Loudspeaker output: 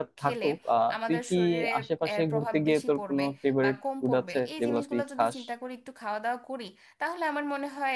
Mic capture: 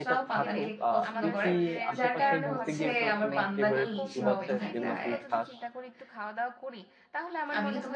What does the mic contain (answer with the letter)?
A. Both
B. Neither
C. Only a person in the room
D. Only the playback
A